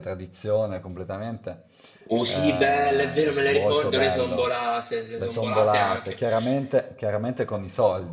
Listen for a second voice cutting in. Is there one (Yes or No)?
Yes